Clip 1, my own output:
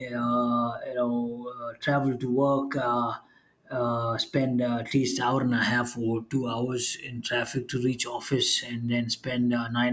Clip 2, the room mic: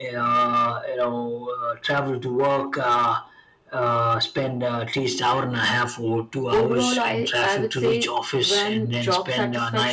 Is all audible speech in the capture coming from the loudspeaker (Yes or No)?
No